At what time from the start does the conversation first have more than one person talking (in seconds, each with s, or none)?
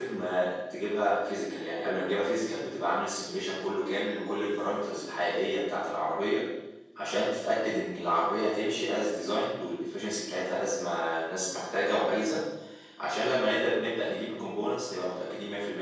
none